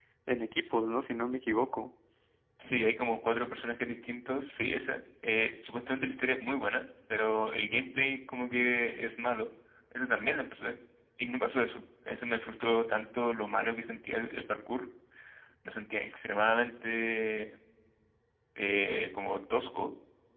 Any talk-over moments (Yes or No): No